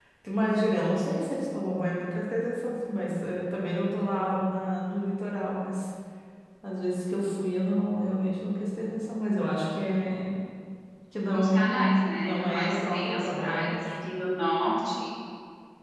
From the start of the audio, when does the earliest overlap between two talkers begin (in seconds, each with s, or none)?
11.3 s